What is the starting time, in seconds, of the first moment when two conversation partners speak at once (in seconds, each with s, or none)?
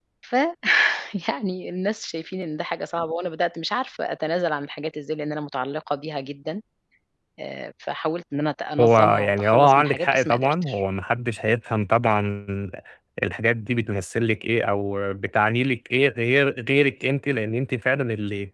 8.8 s